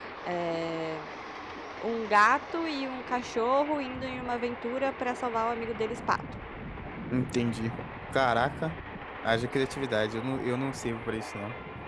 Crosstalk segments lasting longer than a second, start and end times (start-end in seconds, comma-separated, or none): none